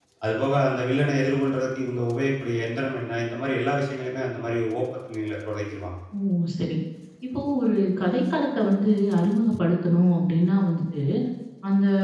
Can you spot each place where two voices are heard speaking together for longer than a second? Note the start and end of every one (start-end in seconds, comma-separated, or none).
none